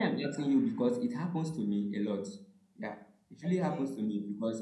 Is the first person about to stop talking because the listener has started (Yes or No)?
No